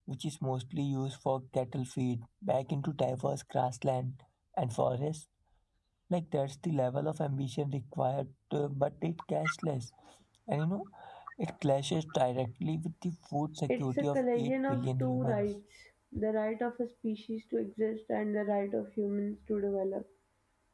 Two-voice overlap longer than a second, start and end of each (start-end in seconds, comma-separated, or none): 13.7-15.5